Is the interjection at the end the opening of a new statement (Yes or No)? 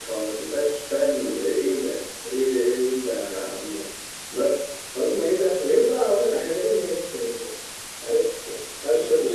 Yes